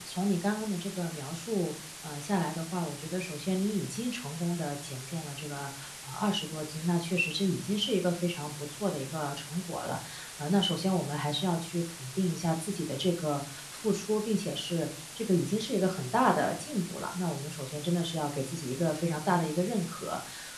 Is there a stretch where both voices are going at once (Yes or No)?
No